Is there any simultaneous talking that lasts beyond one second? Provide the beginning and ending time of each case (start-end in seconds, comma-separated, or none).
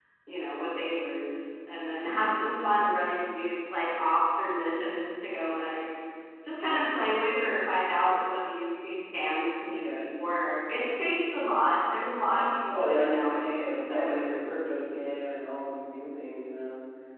12.7-14.2